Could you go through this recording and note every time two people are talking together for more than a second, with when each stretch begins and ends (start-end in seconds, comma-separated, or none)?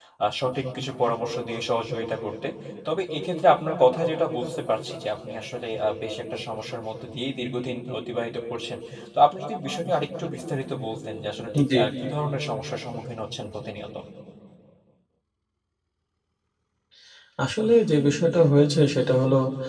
none